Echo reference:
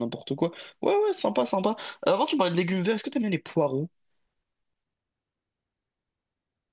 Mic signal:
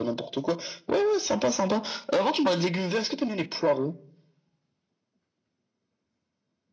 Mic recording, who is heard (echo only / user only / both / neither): echo only